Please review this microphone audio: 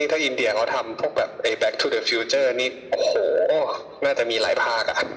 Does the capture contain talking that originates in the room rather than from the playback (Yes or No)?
No